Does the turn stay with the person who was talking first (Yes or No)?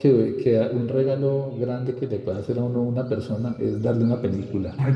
Yes